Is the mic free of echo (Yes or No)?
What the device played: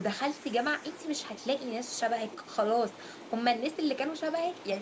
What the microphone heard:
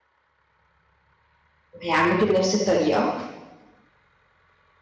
Yes